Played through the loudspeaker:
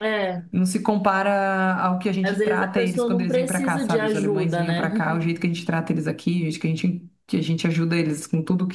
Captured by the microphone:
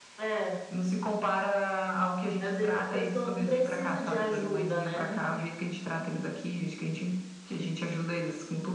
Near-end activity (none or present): none